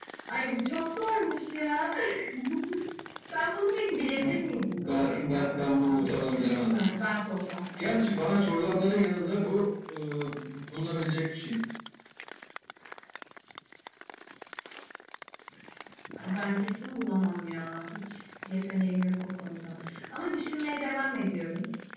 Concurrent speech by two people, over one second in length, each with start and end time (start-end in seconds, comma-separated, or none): 4.8-6.8